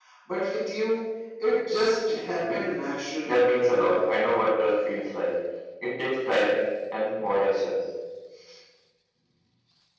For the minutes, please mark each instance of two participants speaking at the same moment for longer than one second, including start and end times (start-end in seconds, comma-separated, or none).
none